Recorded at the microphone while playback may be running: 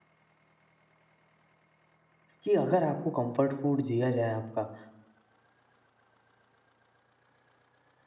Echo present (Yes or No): No